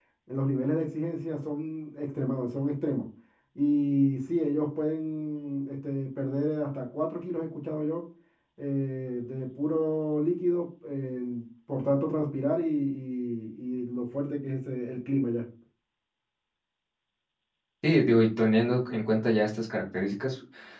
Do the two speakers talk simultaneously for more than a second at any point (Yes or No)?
No